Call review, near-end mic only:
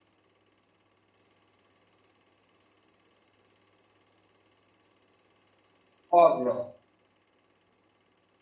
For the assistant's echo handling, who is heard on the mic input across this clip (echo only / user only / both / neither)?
user only